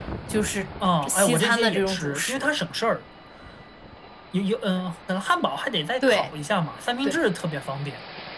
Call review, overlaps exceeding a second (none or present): present